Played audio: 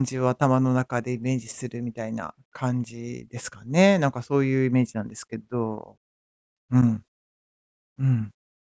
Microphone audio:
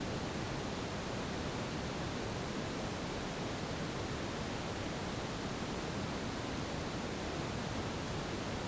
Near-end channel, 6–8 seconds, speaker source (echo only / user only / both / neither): neither